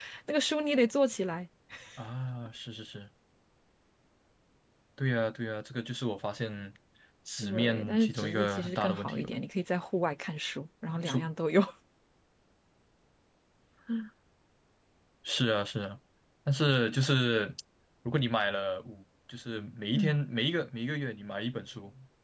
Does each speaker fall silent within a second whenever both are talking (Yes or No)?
No